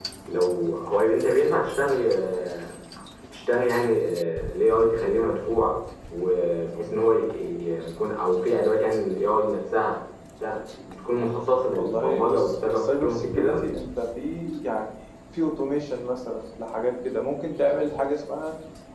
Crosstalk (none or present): present